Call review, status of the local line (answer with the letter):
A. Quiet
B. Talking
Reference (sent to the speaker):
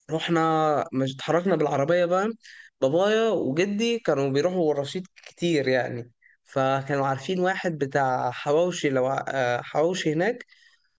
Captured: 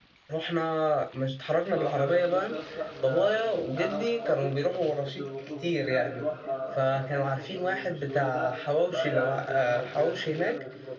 B